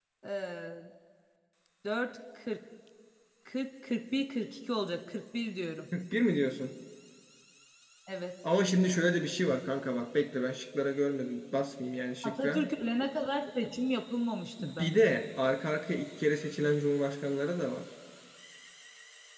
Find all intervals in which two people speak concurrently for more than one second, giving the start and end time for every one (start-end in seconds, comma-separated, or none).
none